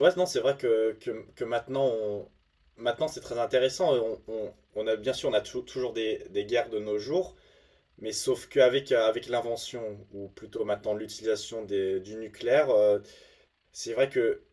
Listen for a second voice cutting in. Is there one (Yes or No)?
No